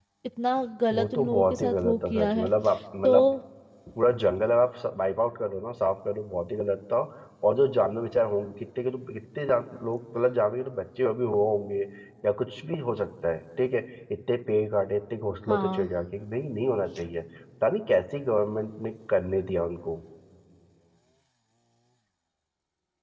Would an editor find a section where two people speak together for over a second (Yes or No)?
Yes